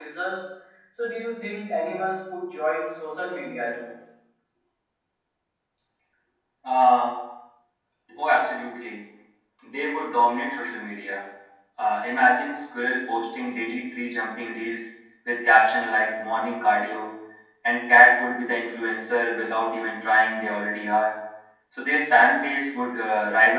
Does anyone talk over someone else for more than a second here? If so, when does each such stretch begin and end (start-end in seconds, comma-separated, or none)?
none